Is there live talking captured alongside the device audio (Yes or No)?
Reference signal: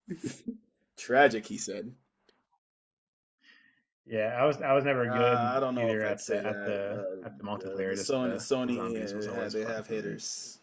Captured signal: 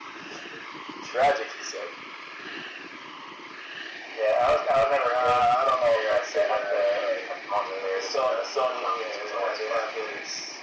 No